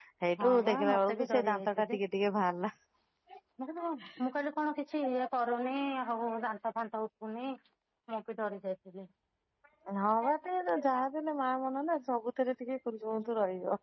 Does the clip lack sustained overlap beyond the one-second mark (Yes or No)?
No